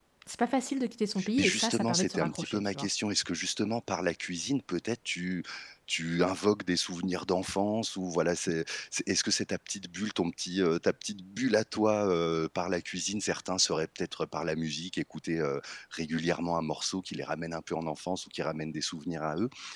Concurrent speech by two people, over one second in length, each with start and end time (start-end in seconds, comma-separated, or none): 1.4-2.9